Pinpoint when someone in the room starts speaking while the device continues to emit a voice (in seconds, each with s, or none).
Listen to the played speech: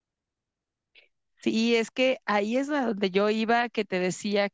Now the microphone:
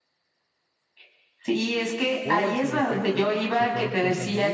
2.2 s